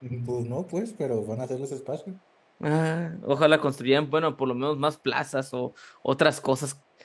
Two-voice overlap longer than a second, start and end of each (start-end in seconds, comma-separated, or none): none